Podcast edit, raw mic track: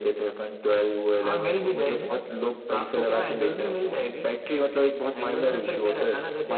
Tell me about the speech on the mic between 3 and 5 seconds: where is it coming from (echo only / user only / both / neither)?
echo only